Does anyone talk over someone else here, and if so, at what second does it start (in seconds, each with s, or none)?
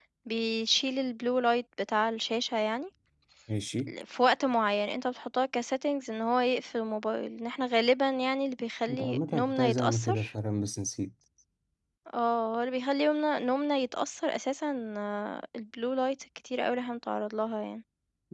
8.9 s